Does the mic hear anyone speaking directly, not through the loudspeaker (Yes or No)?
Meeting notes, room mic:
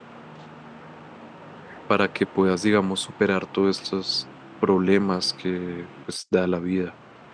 Yes